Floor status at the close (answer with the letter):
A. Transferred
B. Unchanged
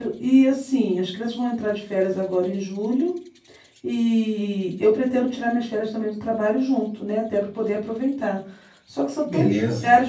B